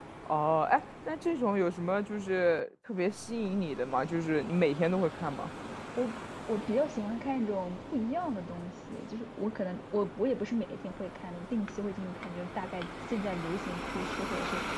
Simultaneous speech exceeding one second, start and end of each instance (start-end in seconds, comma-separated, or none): none